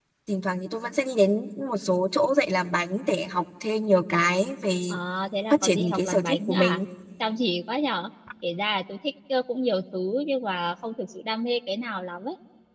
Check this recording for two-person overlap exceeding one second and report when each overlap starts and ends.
5.5-6.8

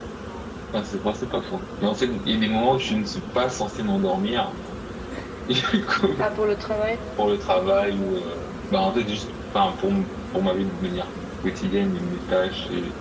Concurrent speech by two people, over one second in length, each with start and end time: none

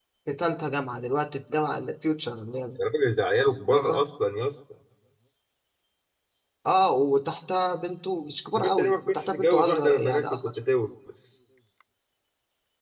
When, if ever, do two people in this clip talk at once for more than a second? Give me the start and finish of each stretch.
8.6-10.6

